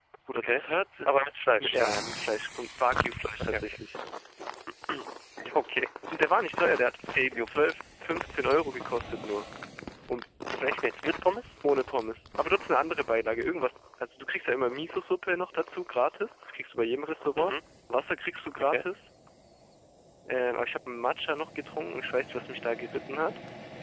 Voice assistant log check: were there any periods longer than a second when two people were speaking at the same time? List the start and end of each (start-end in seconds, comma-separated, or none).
none